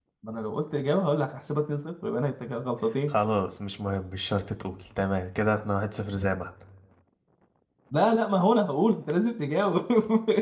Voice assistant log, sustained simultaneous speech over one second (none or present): none